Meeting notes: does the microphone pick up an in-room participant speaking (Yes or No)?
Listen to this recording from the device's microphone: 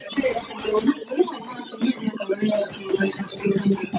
No